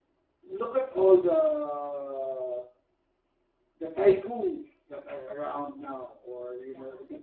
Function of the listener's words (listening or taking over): listening